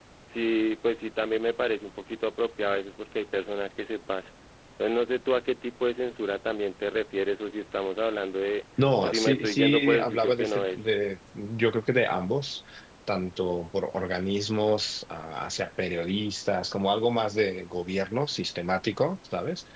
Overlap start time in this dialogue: 8.8 s

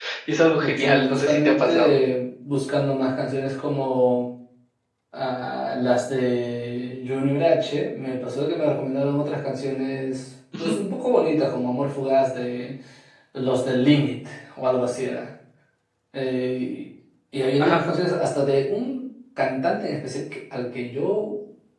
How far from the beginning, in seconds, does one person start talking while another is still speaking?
0.6 s

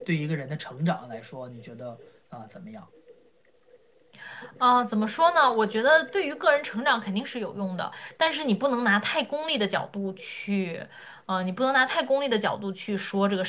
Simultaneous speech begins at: none

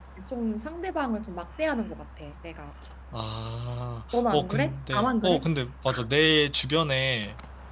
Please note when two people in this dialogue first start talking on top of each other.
4.1 s

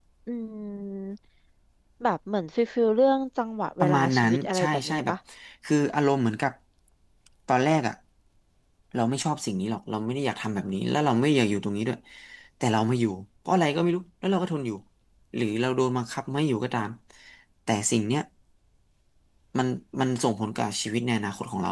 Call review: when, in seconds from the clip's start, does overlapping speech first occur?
3.8 s

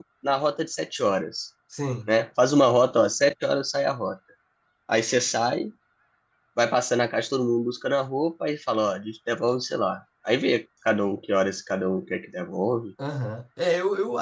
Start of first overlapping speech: none

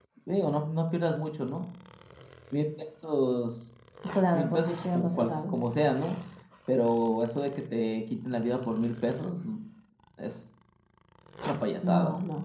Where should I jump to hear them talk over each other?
4.3 s

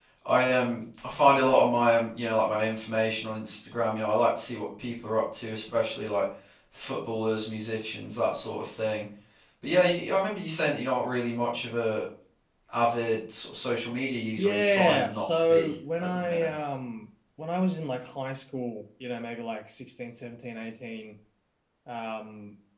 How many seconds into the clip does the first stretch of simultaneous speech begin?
14.4 s

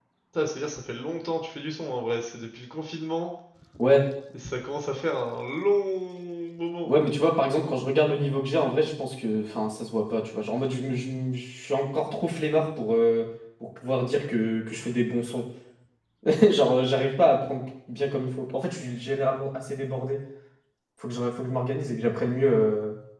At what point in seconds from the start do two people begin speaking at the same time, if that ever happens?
none

